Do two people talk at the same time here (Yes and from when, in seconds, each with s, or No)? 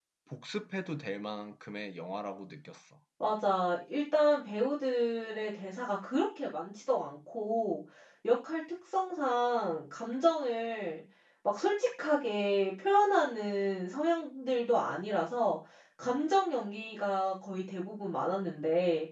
No